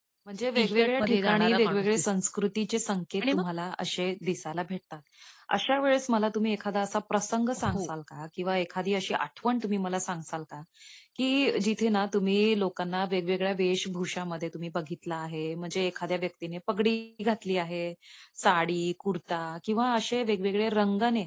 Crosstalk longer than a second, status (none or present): present